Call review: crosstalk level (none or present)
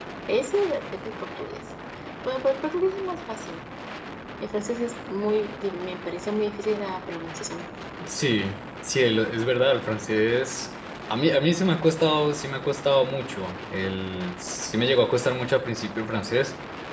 none